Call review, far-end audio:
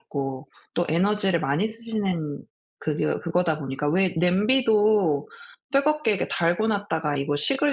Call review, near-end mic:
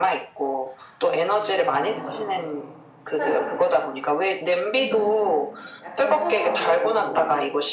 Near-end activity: present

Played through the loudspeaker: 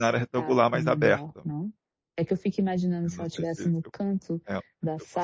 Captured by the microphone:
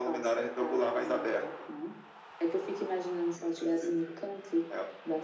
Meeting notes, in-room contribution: none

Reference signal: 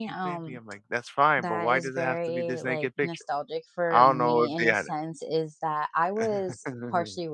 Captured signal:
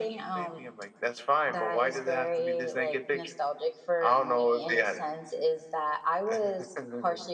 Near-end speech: none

